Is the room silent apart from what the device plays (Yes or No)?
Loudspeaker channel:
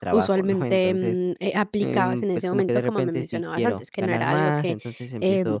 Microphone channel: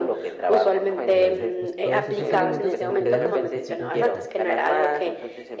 No